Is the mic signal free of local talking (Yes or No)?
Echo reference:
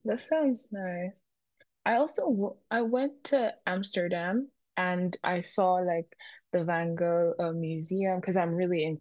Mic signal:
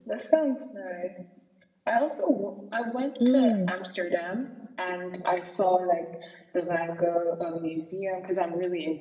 No